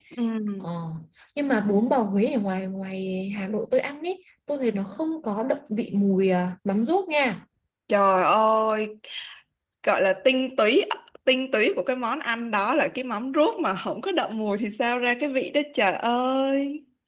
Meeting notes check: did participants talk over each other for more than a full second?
No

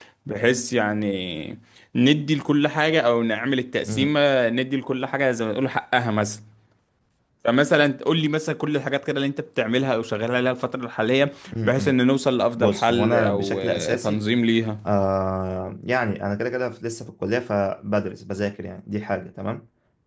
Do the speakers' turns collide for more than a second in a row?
Yes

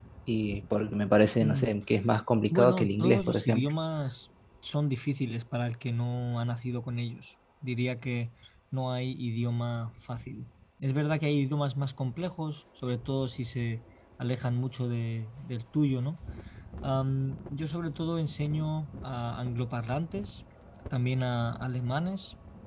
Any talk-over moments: Yes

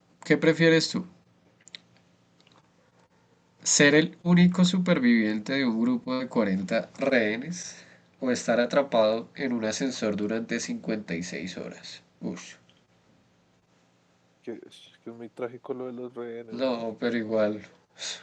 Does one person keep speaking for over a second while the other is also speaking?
No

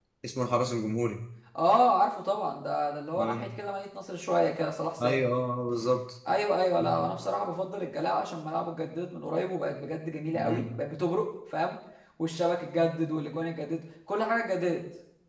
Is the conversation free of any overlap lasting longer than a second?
Yes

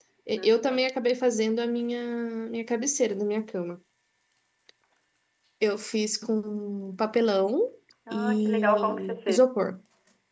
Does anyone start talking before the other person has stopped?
Yes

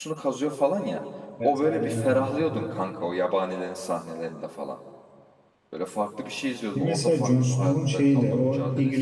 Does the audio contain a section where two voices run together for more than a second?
Yes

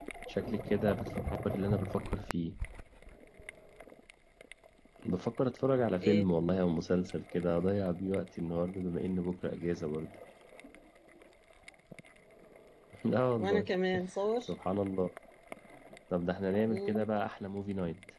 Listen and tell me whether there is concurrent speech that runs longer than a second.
No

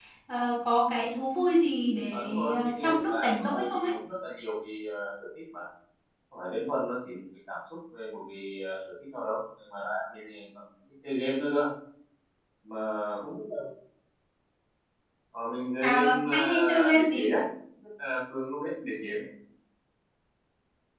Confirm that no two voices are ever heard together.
No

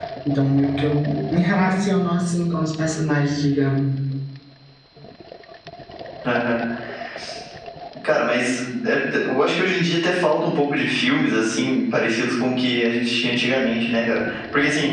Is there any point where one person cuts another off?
No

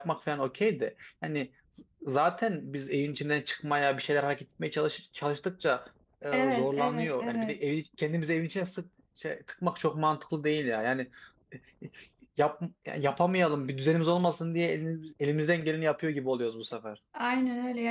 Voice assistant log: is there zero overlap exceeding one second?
No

